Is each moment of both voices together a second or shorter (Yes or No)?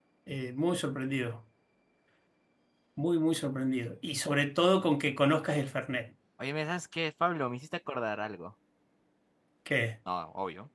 Yes